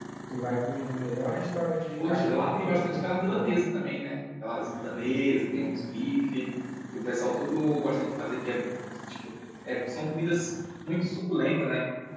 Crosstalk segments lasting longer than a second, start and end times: 2.0-3.6

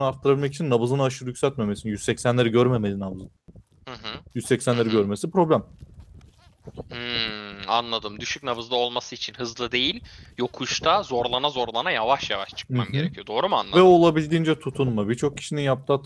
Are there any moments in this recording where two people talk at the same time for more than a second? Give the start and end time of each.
none

